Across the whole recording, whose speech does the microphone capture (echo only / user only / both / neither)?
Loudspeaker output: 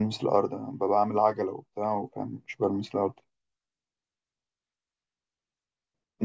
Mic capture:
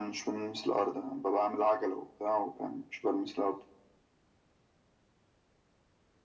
echo only